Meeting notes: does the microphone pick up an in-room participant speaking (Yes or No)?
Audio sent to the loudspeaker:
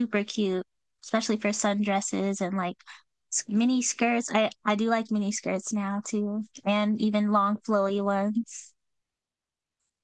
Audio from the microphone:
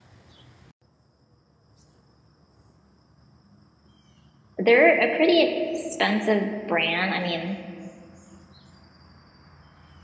Yes